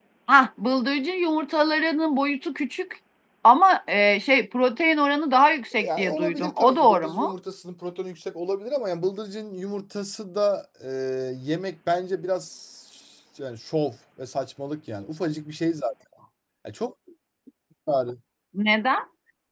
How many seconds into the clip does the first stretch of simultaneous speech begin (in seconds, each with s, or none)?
5.7 s